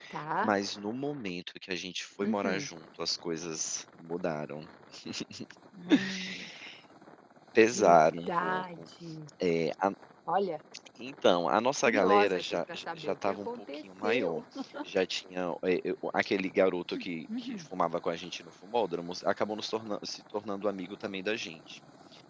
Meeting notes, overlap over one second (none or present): present